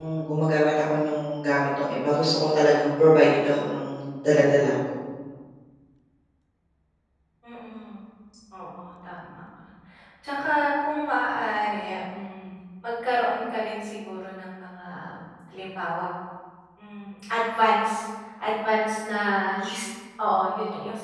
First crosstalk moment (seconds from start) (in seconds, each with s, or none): none